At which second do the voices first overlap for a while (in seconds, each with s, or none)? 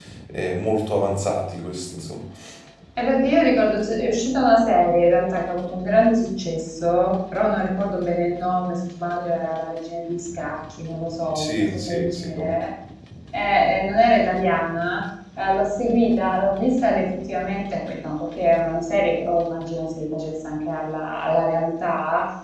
11.3 s